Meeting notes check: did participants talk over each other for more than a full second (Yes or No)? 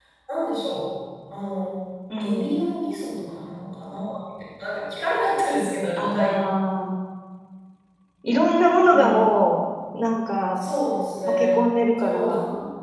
No